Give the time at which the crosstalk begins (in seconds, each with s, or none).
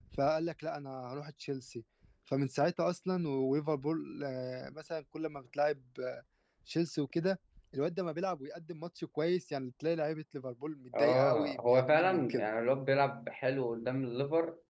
10.9 s